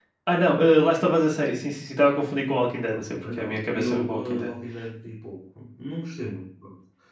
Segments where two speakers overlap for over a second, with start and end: 2.9-4.5

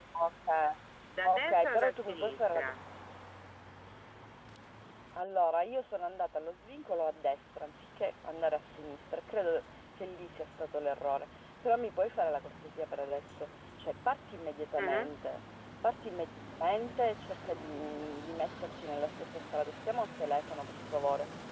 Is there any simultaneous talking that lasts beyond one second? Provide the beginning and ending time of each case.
1.2-2.6

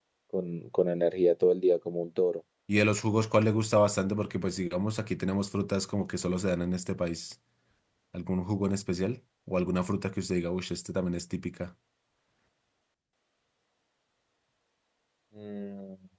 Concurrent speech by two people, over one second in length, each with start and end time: none

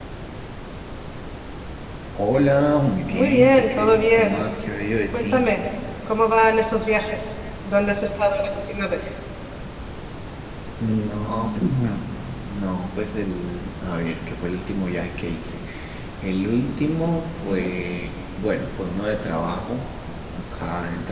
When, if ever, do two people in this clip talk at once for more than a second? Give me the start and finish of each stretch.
3.1-4.4

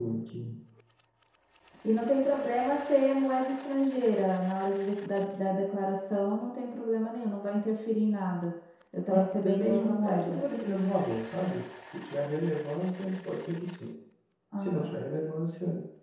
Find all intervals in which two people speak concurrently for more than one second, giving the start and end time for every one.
9.1-10.4

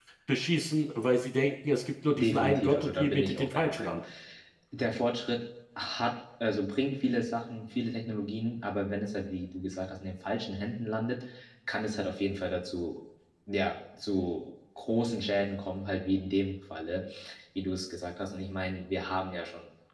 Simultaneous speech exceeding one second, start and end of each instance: 2.1-4.0

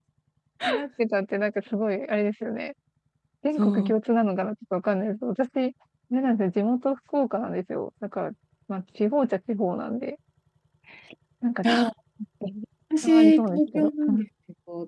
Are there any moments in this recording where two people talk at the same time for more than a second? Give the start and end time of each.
13.0-14.3

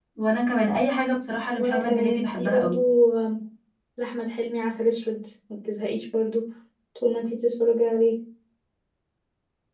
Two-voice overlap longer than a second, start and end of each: 1.6-2.8

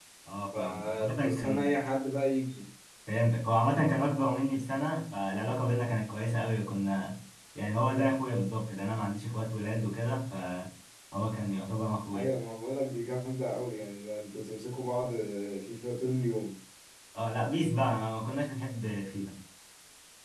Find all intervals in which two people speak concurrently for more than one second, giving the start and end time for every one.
0.5-1.7

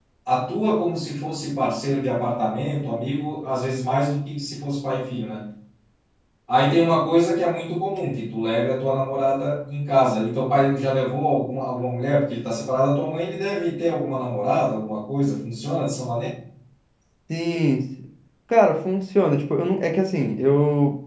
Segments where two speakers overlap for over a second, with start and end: none

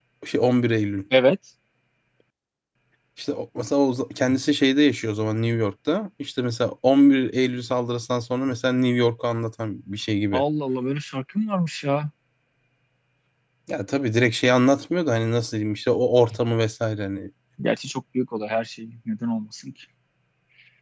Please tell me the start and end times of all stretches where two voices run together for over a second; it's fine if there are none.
none

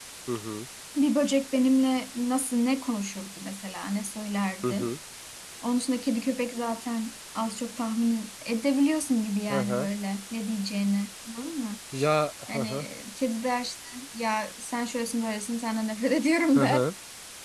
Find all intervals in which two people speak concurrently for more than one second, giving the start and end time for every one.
none

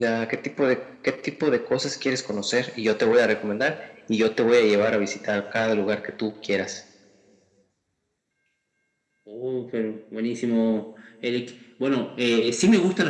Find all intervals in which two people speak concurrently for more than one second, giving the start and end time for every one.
none

